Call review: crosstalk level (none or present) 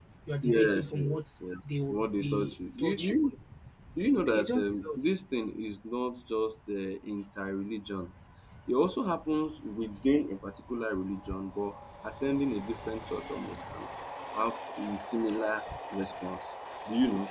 present